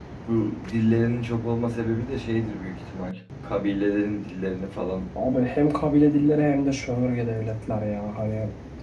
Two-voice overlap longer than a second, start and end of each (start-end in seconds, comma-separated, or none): none